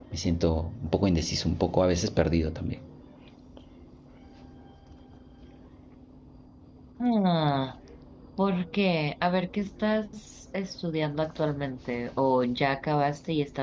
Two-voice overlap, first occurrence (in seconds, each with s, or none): none